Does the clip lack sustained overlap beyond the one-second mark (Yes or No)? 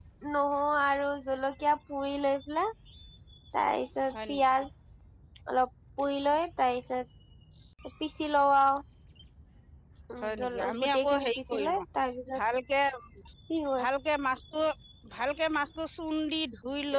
No